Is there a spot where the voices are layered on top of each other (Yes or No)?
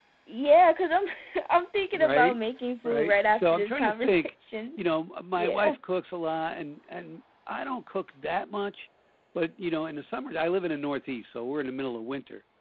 Yes